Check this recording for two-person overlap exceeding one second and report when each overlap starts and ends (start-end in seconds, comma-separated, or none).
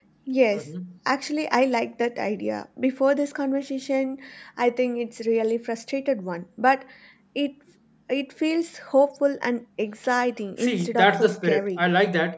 10.6-11.8